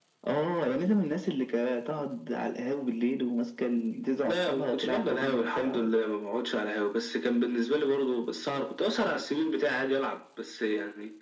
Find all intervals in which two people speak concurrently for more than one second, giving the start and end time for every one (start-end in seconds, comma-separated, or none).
4.2-5.8